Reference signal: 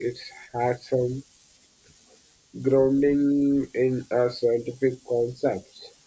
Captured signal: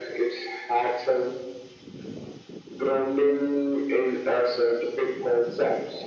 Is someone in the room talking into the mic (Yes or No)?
No